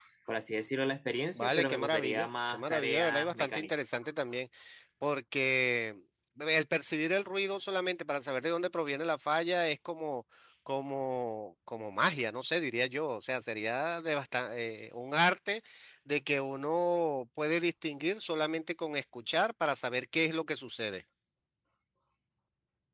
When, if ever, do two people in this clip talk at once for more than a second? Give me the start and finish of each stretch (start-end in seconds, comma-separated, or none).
1.4-3.7